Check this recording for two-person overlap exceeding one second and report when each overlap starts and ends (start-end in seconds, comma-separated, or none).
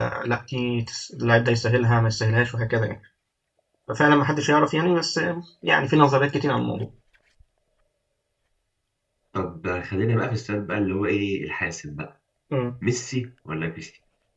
none